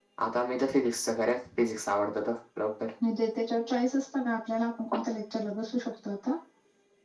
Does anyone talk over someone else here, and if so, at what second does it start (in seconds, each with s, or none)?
none